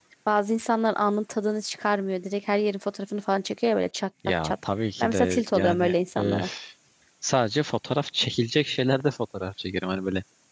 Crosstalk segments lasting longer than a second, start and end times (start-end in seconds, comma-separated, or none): 5.0-6.5